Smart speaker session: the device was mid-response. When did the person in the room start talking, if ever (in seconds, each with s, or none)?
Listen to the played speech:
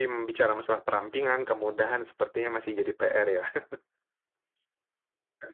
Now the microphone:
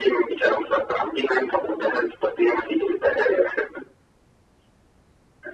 none